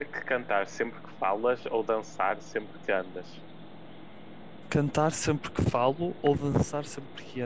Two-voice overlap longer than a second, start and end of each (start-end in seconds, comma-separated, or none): none